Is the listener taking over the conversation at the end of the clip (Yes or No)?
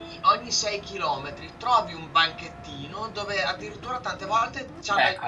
No